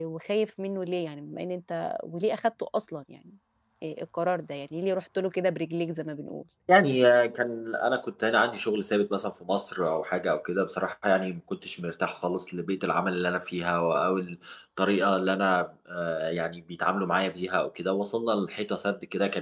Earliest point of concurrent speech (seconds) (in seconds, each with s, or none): none